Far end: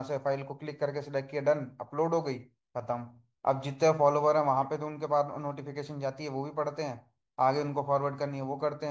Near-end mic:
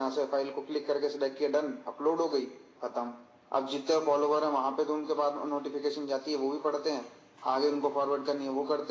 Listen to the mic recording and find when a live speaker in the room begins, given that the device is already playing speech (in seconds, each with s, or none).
none